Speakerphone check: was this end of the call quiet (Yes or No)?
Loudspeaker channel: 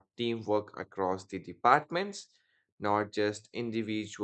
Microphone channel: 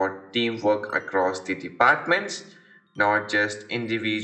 Yes